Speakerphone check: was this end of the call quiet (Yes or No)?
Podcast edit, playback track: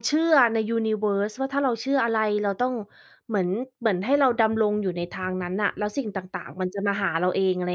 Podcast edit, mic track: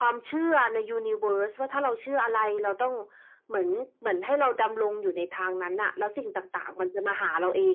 Yes